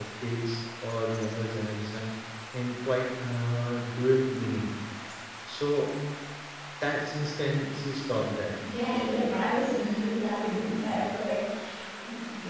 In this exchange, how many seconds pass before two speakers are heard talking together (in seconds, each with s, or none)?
none